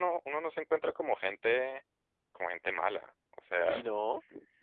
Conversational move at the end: taking over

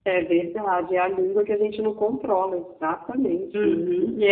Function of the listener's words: taking over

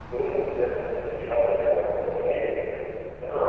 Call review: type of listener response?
taking over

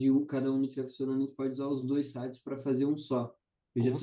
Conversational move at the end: listening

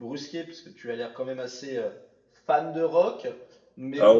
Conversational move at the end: taking over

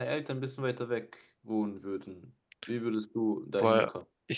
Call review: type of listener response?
taking over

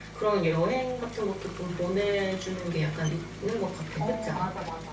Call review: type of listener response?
taking over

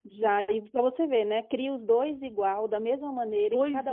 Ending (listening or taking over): taking over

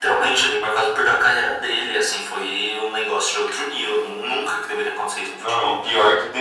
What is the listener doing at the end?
taking over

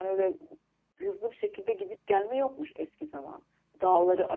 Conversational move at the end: listening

